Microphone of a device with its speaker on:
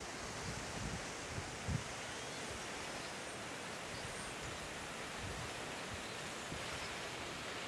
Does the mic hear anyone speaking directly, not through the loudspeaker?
No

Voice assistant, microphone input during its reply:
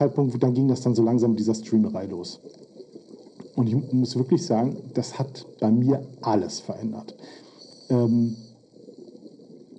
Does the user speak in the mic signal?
No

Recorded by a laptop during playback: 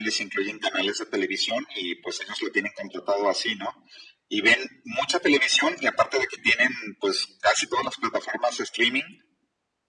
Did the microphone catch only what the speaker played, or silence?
Yes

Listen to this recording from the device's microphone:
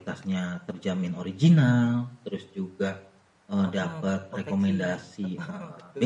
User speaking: Yes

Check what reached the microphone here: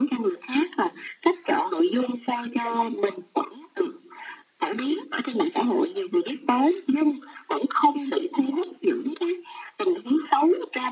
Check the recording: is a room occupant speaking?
No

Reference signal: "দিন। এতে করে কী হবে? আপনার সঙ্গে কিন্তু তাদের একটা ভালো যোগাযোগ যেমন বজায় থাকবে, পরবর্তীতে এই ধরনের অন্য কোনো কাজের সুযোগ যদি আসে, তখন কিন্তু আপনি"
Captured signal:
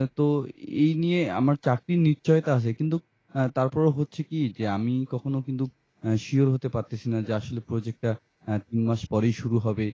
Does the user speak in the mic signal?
Yes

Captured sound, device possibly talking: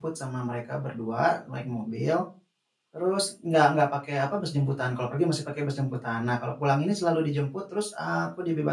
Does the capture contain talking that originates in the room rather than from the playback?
Yes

